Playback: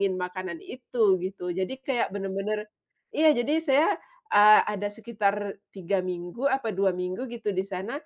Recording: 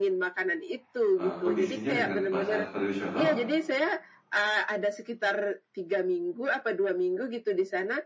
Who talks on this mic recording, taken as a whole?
both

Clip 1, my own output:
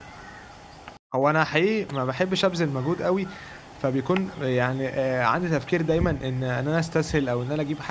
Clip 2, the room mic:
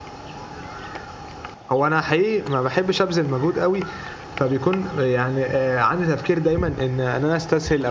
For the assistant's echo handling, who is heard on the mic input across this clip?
echo only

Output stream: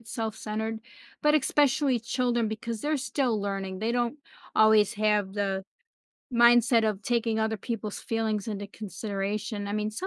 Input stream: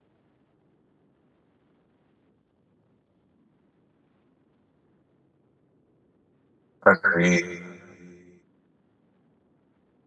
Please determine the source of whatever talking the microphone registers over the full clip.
user only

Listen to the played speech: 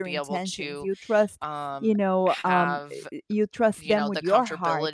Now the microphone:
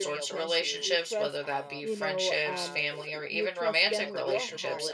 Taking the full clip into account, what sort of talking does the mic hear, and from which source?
both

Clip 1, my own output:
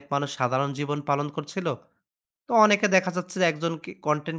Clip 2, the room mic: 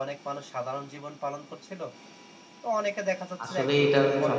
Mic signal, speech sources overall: both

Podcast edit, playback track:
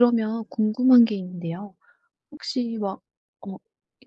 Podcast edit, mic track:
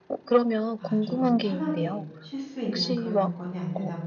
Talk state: both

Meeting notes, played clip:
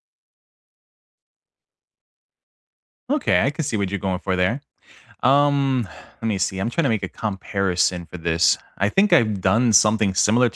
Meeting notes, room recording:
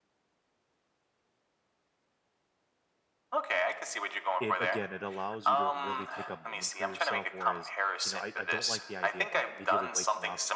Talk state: both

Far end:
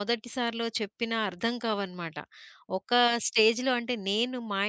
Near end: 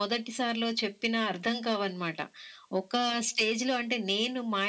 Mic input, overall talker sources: echo only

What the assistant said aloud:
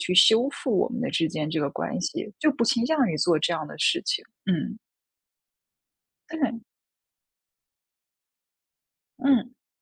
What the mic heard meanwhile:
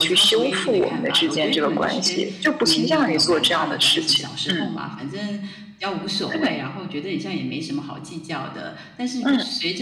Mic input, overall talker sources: both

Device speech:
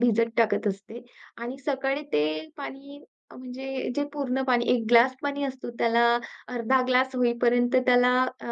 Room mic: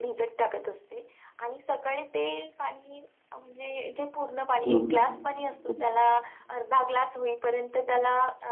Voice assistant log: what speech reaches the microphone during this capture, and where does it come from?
both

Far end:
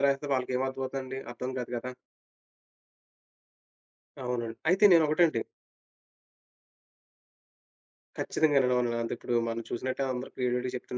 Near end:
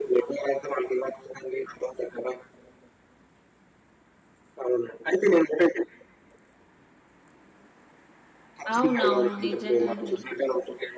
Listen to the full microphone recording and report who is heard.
both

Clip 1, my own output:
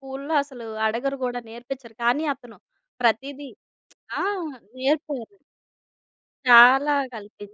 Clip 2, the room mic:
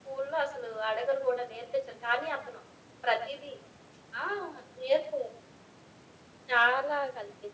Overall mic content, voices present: echo only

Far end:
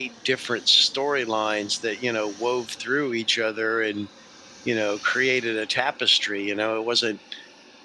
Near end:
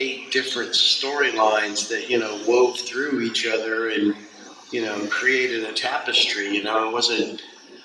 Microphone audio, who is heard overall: echo only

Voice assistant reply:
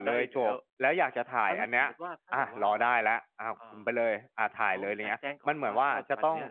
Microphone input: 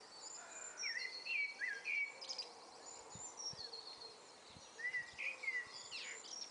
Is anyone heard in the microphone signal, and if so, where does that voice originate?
neither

